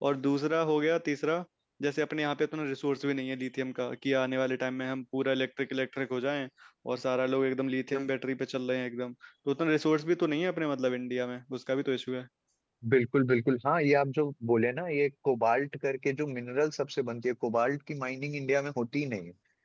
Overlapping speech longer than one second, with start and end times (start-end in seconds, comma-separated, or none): none